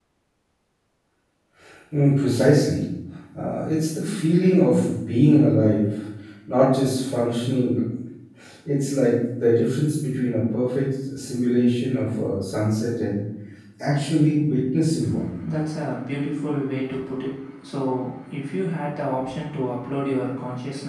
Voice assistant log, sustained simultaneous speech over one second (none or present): none